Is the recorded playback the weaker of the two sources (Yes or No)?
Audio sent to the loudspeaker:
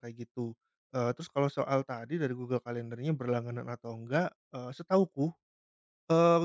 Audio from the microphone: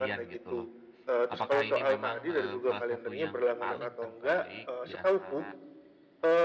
No